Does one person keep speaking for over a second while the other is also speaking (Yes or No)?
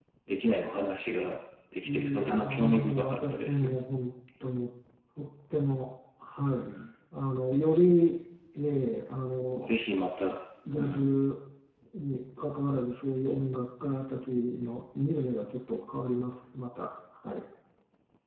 Yes